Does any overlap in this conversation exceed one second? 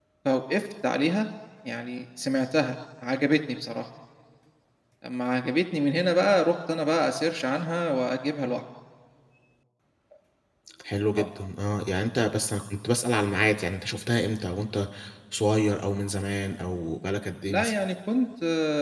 No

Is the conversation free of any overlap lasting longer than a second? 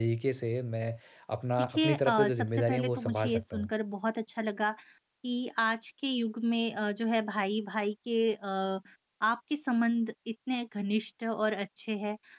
No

